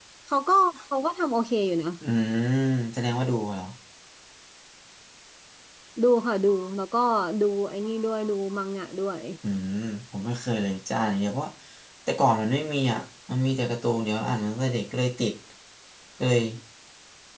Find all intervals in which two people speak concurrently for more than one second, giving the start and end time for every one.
none

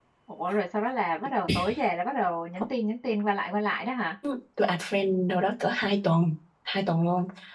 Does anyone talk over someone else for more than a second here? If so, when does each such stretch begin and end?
none

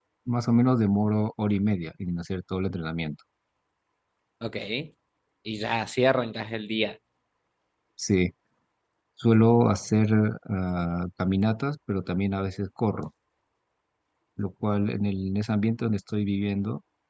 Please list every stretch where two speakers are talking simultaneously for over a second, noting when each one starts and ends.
none

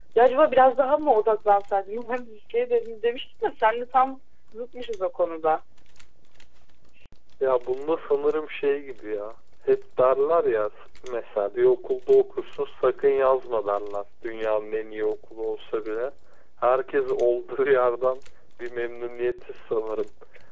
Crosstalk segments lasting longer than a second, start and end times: none

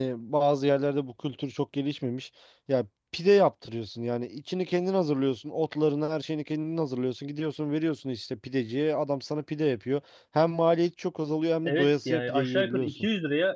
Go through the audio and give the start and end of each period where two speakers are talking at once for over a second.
11.6-12.9

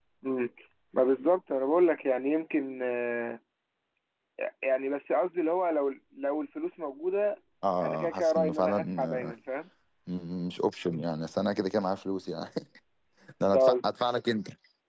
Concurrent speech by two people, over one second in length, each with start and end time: 7.8-9.3

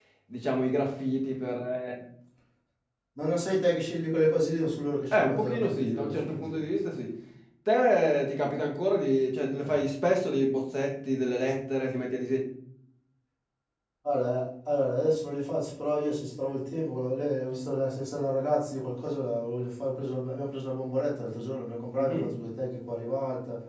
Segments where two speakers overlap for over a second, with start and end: 5.1-6.6

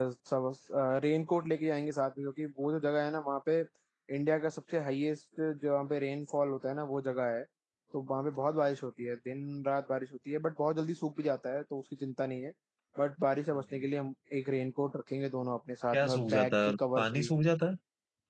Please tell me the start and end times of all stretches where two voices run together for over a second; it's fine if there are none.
15.9-17.3

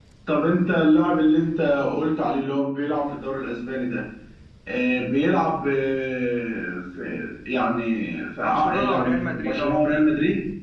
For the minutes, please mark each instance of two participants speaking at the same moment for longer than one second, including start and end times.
8.4-9.9

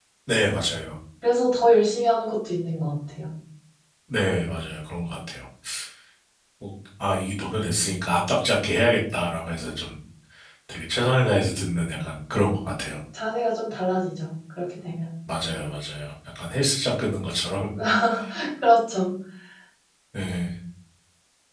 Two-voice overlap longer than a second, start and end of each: none

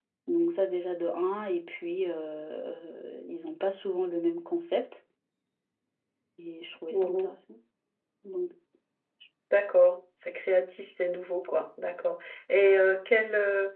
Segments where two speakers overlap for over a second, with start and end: none

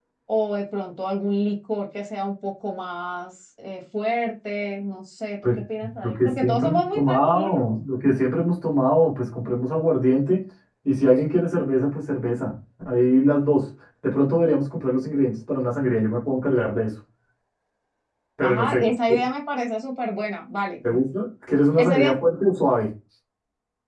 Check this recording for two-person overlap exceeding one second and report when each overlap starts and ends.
6.0-7.7

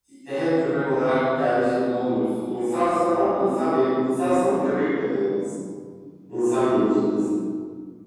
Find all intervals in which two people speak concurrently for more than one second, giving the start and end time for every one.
none

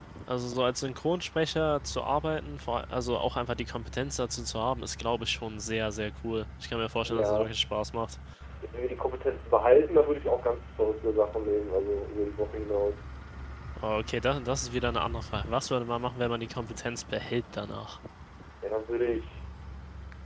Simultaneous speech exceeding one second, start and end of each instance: none

